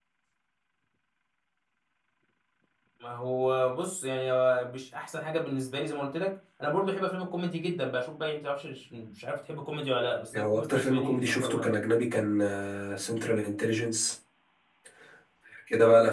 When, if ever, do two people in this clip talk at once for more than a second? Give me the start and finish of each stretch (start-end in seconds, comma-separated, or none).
10.3-11.8